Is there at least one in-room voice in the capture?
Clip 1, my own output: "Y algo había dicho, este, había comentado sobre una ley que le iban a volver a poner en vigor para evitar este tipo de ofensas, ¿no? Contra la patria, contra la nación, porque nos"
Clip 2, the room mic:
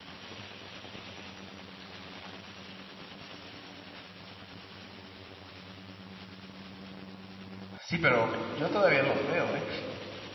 Yes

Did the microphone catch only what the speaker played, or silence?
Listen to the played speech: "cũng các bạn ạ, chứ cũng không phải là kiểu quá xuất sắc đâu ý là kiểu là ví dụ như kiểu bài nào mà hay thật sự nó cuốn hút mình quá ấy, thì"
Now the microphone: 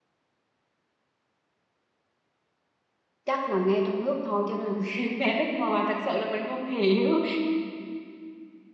No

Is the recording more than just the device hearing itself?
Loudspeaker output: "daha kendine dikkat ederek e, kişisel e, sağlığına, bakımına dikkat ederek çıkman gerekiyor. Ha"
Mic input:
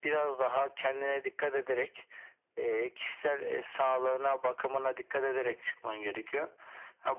No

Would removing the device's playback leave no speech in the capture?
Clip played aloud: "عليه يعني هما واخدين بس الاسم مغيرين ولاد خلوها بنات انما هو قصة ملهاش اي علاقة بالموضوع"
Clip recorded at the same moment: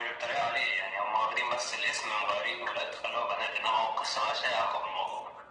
Yes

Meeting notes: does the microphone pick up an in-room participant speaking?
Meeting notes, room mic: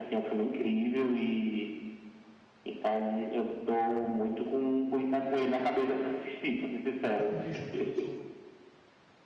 Yes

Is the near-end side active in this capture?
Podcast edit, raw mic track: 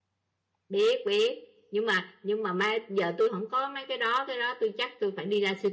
Yes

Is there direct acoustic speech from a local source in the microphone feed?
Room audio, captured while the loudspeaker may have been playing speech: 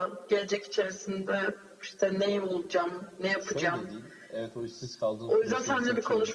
Yes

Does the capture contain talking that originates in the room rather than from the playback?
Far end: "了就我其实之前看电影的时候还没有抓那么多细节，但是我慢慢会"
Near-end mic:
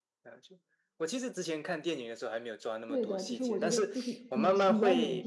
Yes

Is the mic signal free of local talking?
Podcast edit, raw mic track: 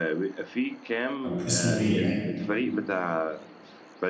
No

